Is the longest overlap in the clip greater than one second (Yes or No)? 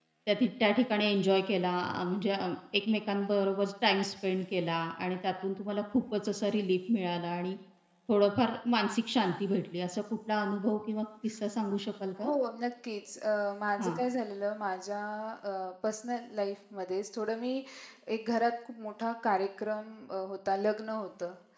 No